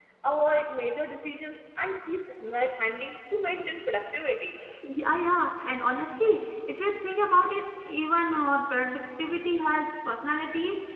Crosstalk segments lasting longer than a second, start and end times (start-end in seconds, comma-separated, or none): none